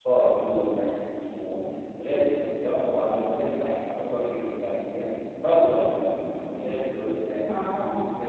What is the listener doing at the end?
listening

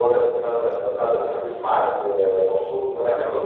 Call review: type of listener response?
listening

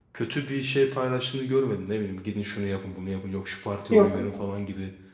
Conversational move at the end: listening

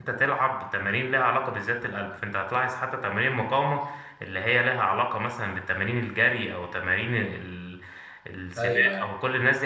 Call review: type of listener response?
listening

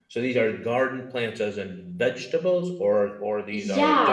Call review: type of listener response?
taking over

